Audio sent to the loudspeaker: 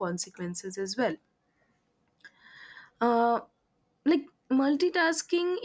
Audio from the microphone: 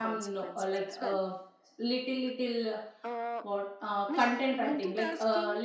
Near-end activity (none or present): present